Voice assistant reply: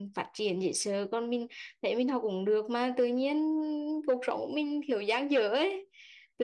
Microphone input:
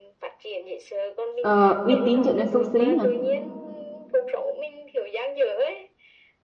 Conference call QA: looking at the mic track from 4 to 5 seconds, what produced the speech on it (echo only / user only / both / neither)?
echo only